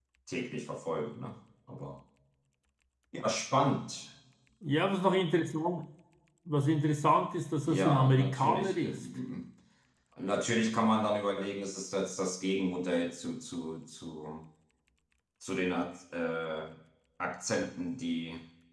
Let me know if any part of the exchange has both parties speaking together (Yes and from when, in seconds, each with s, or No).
Yes, from 7.6 s